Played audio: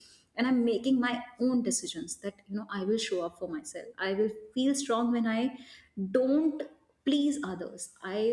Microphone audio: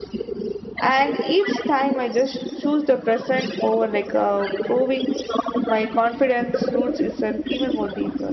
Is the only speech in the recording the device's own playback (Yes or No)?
No